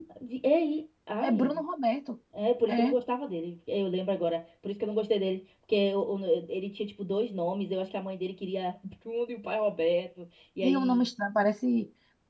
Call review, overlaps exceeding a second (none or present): none